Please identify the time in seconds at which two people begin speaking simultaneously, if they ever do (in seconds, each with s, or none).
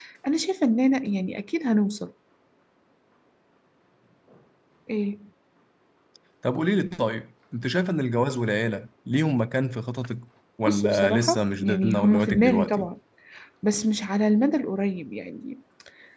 10.7 s